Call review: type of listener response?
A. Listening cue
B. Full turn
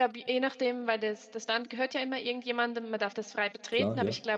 A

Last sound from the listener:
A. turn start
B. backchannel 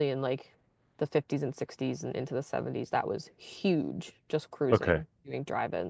B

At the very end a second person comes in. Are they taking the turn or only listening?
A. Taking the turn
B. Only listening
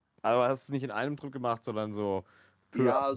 A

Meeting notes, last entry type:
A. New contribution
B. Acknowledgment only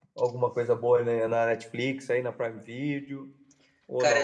A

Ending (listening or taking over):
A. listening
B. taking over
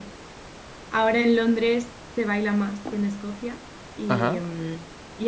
A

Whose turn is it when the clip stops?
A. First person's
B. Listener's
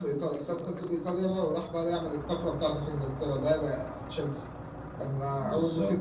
A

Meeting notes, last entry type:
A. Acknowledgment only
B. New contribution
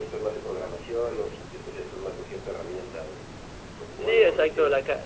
B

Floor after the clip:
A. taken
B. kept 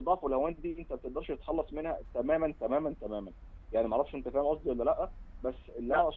B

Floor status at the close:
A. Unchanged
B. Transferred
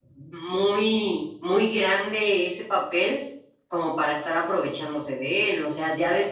B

